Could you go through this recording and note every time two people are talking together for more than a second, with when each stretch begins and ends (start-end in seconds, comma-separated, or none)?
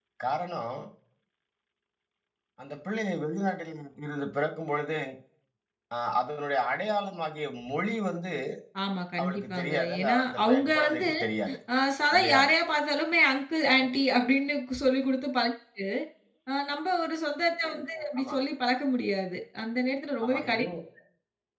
9.2-11.1